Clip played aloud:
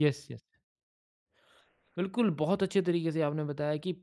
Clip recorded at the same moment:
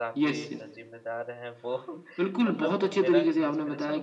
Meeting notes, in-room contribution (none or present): present